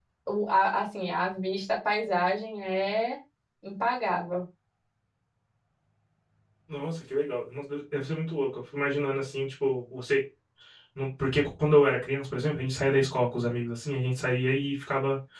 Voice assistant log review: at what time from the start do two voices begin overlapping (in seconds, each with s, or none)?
none